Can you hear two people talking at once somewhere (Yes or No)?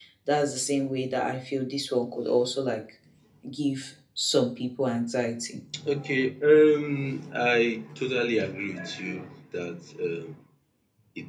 No